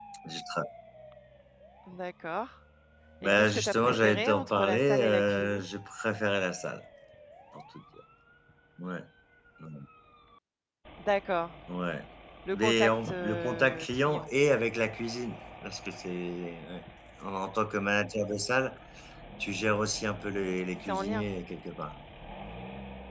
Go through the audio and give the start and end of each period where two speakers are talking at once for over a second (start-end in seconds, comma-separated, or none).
3.2-5.6, 12.5-14.2